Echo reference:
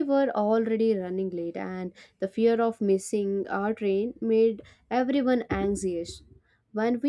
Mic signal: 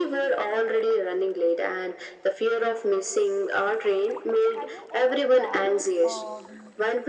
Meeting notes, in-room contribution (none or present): present